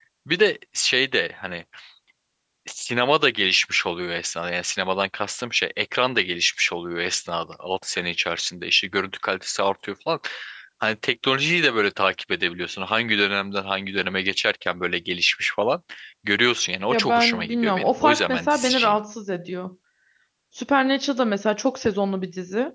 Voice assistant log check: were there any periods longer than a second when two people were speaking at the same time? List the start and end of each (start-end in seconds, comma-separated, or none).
16.9-19.0